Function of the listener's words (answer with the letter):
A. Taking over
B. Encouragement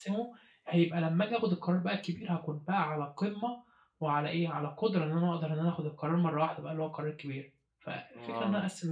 A